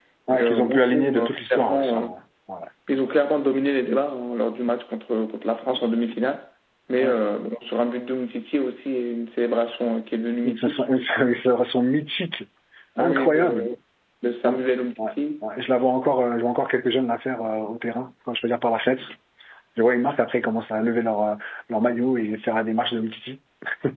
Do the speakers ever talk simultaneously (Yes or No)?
Yes